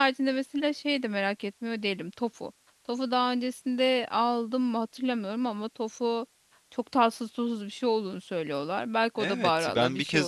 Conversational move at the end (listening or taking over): taking over